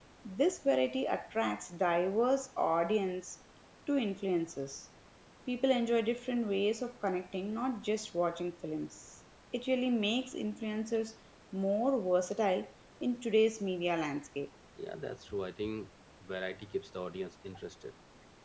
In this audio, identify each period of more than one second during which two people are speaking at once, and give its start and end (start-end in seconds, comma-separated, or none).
none